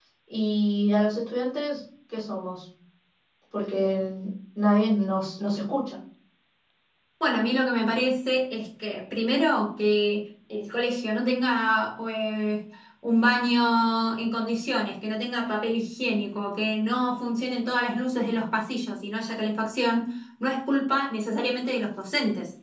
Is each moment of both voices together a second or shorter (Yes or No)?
Yes